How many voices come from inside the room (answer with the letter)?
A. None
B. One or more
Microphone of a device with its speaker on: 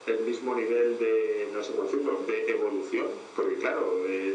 A